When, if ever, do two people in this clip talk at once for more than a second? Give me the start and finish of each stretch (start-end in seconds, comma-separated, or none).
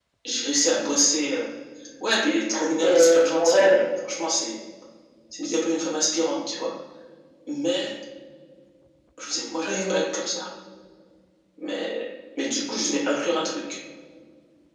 2.6-3.8